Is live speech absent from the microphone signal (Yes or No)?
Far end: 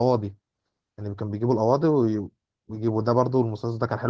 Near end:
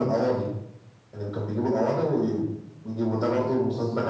Yes